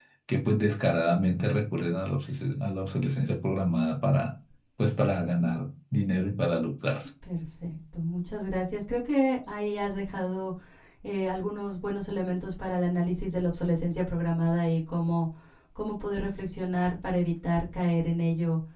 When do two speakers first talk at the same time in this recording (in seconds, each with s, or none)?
none